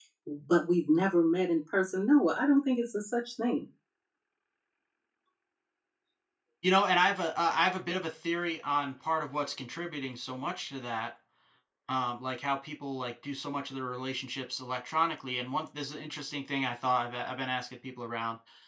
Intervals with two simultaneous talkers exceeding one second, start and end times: none

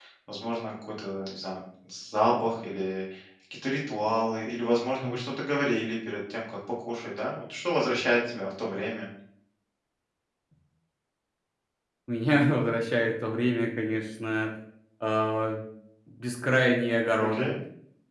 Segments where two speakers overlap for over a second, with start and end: none

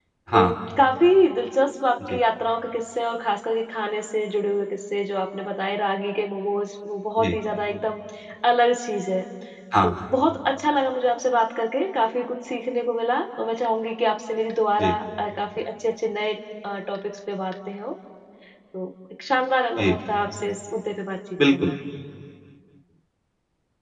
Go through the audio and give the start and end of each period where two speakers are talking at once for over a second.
none

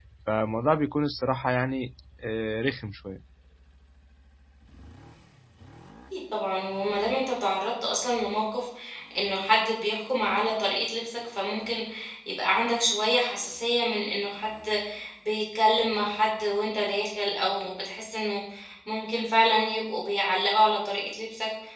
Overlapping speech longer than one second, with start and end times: none

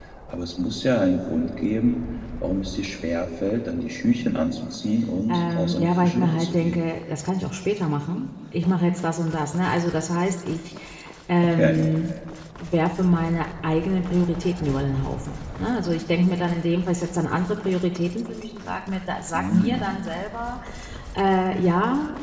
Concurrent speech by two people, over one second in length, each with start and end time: 5.3-6.8

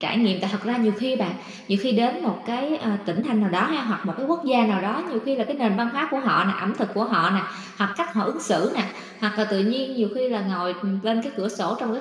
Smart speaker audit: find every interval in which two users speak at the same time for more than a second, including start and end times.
none

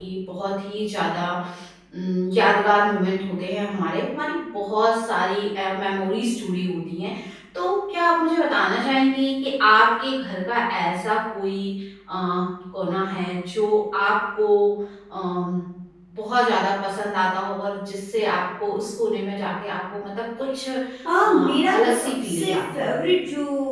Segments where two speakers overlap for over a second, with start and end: 21.2-22.9

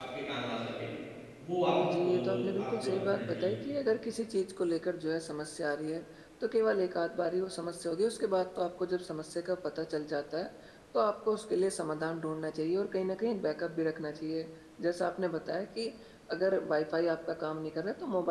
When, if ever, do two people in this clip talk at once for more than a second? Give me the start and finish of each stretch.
2.0-3.5

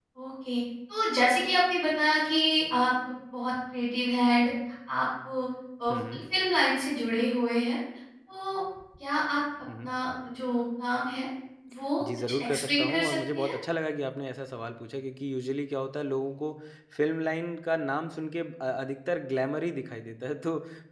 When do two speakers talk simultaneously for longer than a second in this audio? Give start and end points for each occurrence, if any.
12.3-13.5

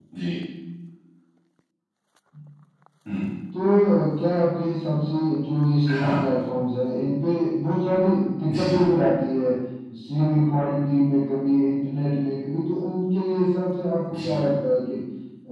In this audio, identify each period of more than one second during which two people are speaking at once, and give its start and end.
none

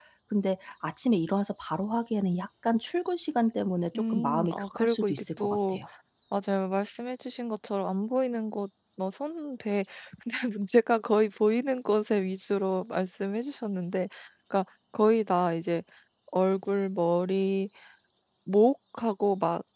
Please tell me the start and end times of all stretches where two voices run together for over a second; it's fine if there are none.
3.9-5.8

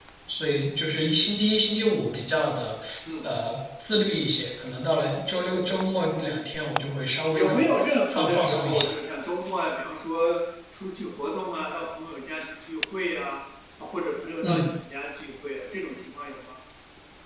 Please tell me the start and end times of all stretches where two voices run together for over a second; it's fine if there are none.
7.3-8.9

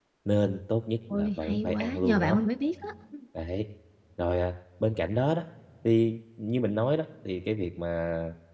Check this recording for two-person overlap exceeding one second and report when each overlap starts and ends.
1.1-2.4

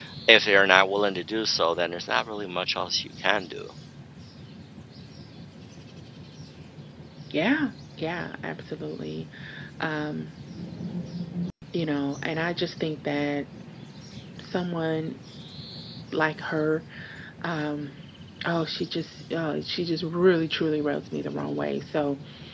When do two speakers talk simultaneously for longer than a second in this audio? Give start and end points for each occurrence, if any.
none

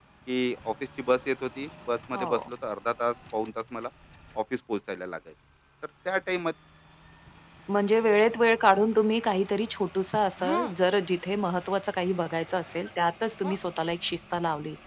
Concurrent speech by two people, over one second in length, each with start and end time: none

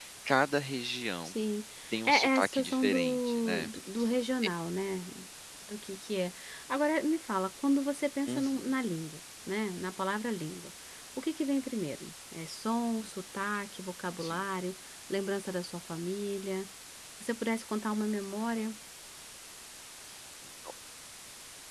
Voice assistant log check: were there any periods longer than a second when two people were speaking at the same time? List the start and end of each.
2.1-3.7

